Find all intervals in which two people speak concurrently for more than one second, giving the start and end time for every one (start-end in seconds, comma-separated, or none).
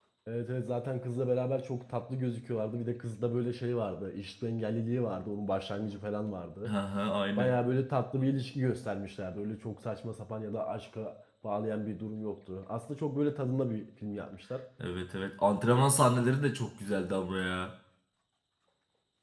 none